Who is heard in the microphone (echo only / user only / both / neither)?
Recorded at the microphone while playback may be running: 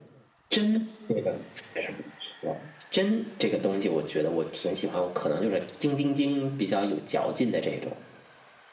echo only